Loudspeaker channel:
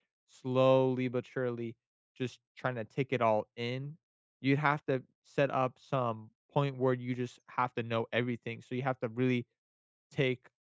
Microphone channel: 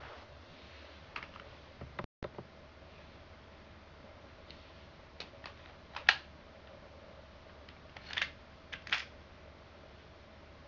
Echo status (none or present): none